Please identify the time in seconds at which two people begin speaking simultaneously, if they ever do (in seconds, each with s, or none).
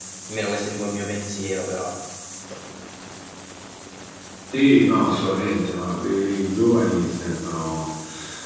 none